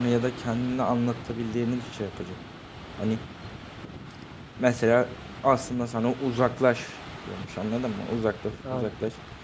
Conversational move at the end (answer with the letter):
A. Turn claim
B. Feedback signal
B